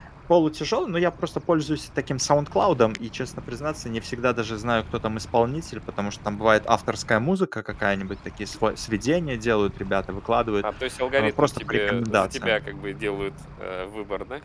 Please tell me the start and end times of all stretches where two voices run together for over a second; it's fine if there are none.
11.2-12.6

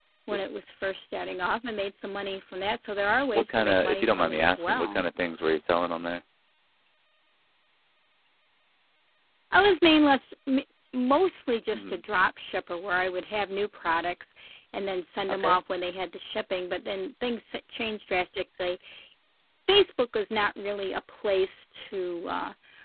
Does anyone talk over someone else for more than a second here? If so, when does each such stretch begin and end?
3.3-5.0

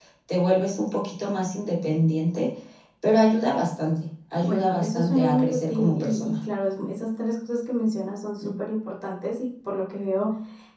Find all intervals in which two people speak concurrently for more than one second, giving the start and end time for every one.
4.4-6.3

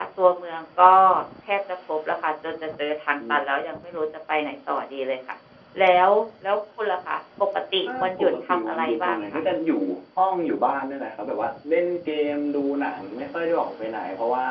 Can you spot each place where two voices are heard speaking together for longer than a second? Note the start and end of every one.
7.9-9.2

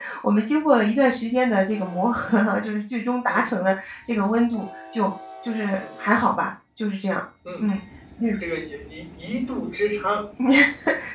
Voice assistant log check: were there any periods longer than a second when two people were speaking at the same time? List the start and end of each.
none

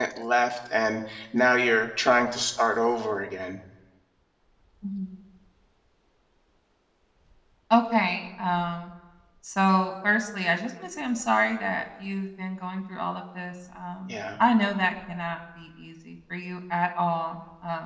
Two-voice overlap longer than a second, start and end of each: none

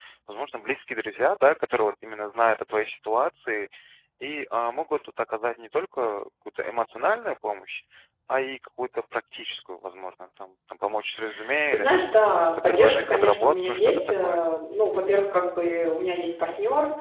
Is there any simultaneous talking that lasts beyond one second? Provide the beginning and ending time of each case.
11.7-14.5

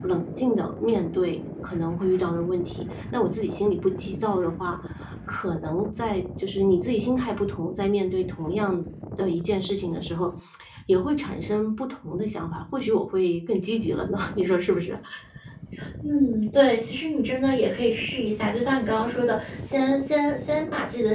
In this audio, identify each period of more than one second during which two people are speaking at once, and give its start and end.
none

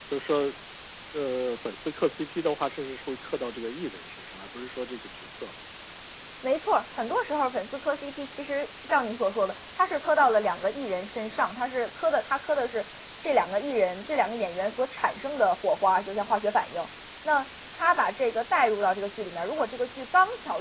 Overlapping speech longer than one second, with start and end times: none

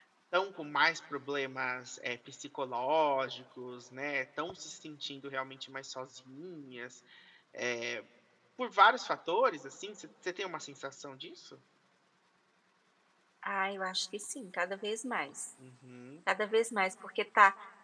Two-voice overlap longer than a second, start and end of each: none

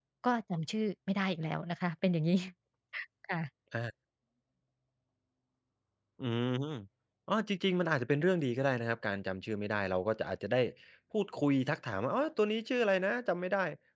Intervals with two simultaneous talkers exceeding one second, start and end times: none

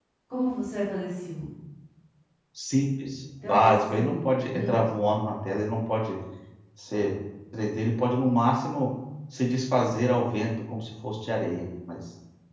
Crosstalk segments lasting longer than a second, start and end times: 3.4-4.7

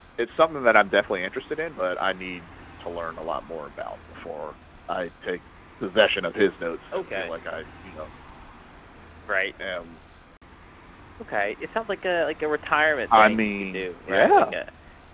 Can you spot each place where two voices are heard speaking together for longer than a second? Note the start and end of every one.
13.2-14.5

